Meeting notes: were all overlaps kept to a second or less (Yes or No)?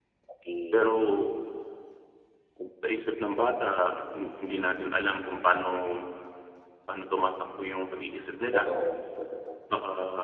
Yes